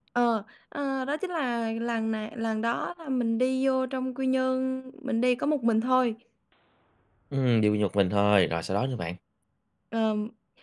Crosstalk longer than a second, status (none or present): none